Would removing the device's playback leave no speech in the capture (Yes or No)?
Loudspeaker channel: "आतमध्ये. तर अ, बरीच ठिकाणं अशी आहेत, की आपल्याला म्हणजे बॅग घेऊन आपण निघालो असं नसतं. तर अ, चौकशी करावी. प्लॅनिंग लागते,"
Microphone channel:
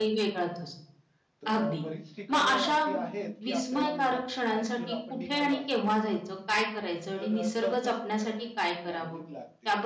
No